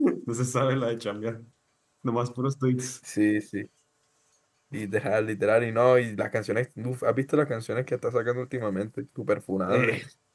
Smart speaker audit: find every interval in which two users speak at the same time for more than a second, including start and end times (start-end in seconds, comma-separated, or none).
none